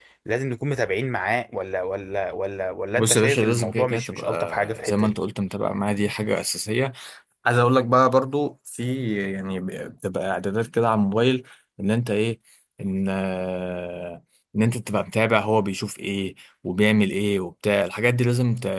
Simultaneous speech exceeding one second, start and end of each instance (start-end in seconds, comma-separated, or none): 3.0-5.2